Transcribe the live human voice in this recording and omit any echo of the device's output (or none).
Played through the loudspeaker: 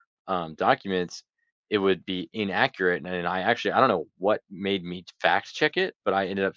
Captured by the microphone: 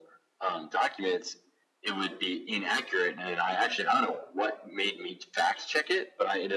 none